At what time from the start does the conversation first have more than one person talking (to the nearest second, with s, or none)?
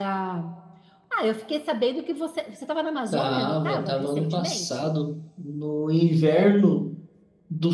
3 s